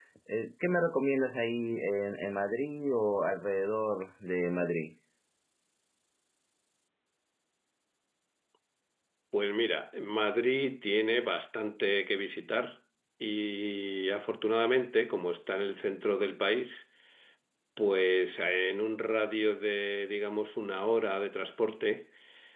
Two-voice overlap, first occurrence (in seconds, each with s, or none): none